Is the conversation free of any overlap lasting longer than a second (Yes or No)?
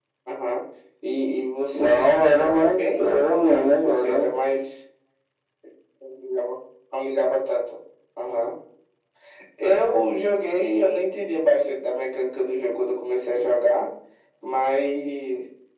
No